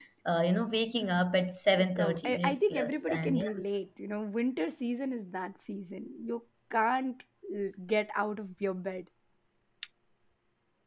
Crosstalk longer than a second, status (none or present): present